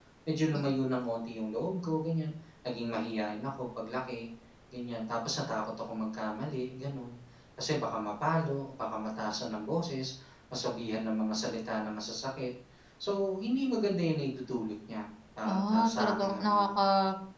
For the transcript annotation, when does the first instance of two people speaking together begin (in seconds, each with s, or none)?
15.4 s